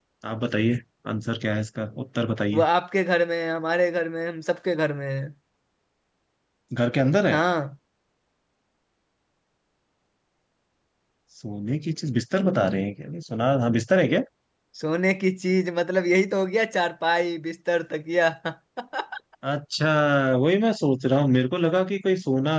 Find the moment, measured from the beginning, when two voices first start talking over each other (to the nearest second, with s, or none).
none